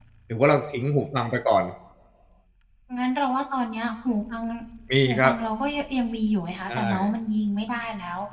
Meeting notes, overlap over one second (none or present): none